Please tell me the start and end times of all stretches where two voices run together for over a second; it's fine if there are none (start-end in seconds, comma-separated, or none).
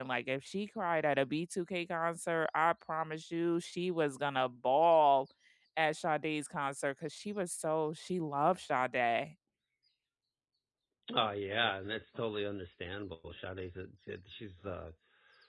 none